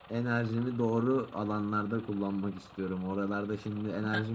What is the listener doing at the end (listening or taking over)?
listening